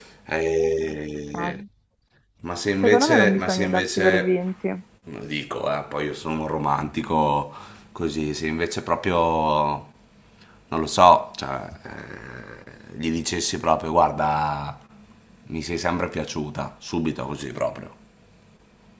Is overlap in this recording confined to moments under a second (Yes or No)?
No